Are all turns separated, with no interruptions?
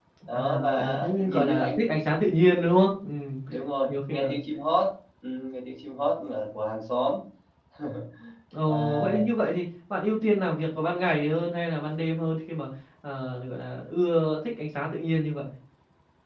No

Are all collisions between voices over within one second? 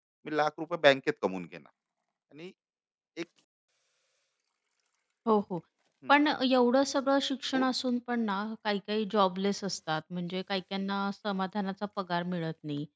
Yes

